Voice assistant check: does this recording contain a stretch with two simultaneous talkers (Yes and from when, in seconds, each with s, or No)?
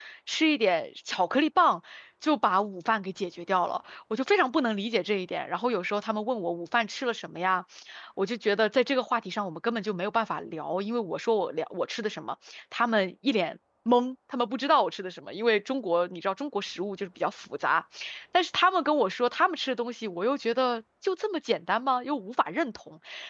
No